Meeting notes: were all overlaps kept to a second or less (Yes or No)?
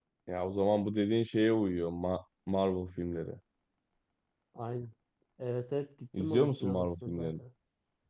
No